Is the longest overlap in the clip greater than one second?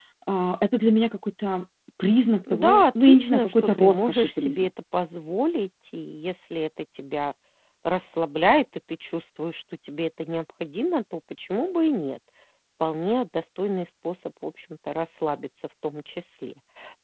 Yes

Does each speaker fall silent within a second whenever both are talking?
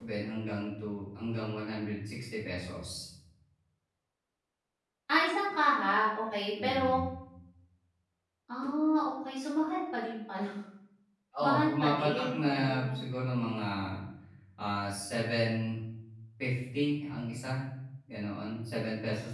No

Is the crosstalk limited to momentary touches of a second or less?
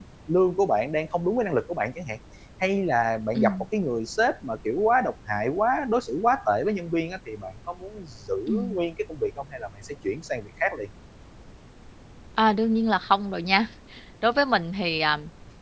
Yes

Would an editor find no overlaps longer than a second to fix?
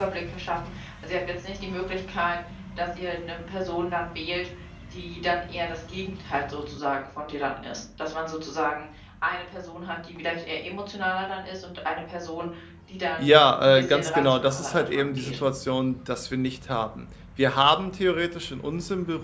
No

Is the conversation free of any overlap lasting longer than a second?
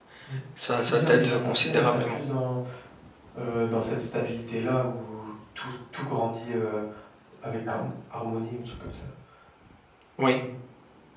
No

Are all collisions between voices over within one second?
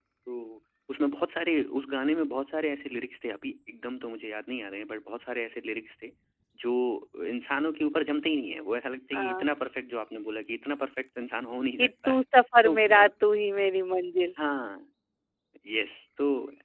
Yes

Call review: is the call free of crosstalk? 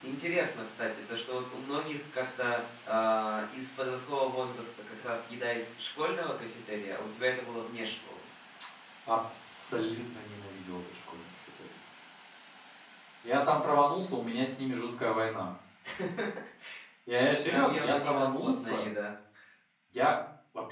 No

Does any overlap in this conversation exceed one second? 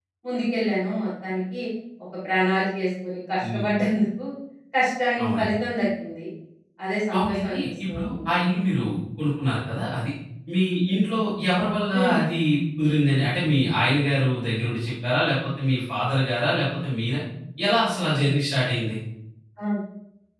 Yes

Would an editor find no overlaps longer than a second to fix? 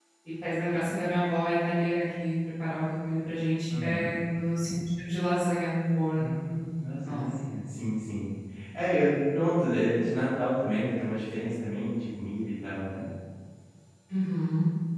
Yes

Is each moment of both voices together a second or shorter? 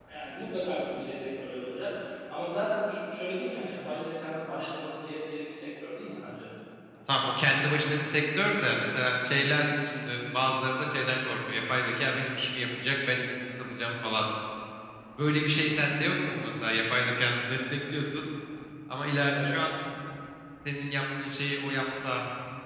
Yes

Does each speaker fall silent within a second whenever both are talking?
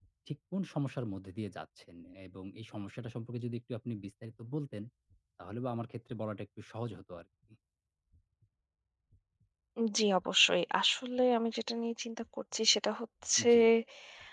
Yes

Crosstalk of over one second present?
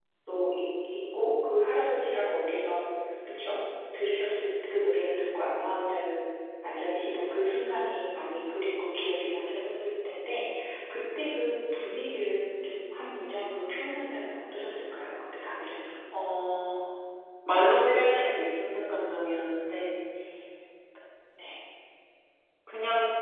No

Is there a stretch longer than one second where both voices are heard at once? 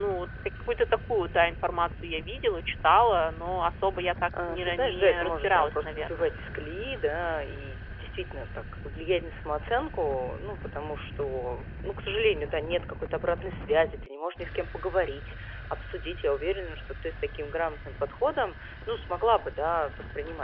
Yes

